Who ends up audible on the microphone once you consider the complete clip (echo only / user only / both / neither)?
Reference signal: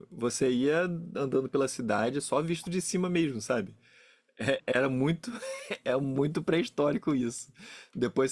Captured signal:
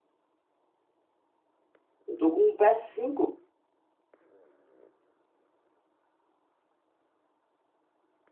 user only